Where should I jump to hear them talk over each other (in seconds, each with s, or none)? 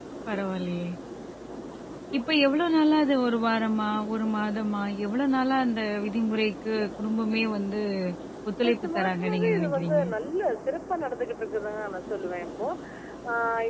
8.6 s